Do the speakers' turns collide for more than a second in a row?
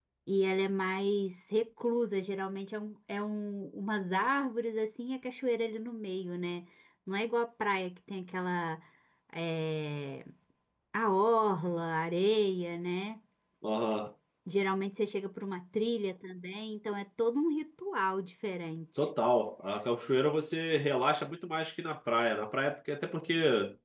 No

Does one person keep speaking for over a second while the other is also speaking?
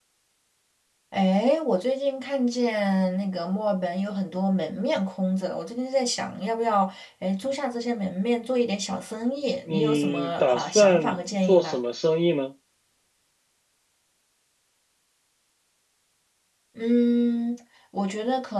Yes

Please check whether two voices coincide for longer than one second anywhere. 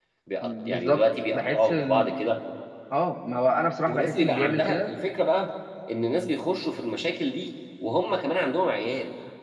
Yes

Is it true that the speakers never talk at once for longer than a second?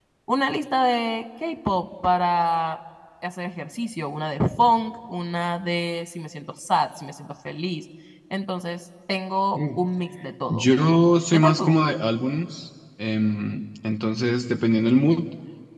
No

